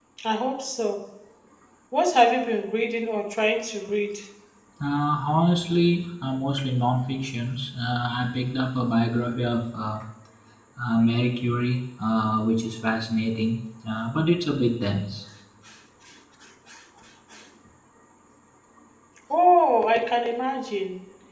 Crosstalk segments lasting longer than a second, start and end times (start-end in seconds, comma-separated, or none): none